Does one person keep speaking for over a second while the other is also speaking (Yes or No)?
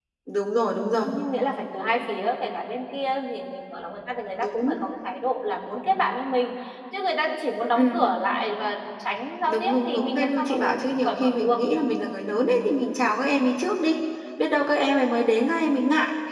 Yes